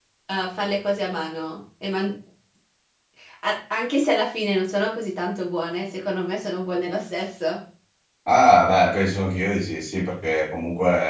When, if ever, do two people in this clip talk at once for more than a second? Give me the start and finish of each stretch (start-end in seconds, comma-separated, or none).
none